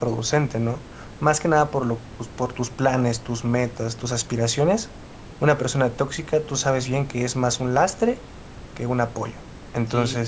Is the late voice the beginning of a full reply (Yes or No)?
Yes